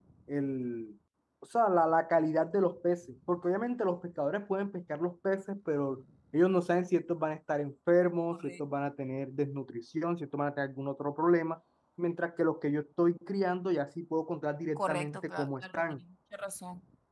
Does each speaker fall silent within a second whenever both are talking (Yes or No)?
No